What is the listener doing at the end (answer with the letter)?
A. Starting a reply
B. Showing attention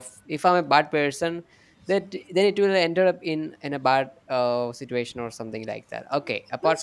A